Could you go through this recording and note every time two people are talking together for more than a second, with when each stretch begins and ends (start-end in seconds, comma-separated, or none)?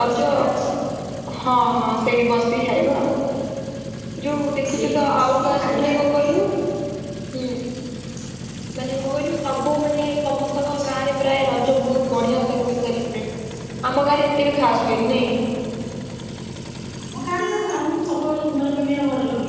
4.7-6.3